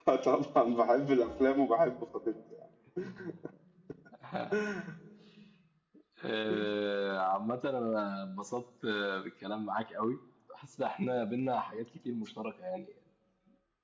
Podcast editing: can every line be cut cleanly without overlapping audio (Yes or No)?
Yes